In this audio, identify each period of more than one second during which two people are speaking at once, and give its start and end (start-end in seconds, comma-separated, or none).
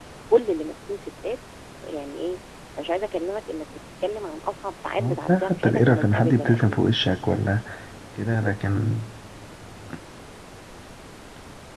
5.0-6.9